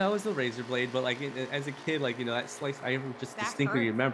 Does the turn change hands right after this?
No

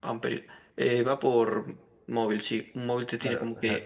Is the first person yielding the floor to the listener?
Yes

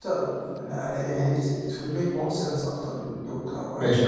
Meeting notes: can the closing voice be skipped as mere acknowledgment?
No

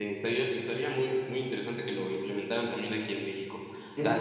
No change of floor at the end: Yes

